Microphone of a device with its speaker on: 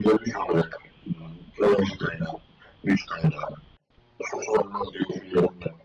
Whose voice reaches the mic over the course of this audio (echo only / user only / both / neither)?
echo only